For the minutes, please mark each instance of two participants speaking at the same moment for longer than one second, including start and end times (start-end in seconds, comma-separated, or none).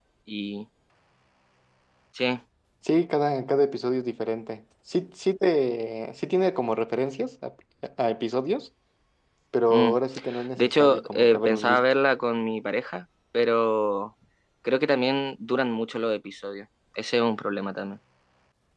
10.6-11.8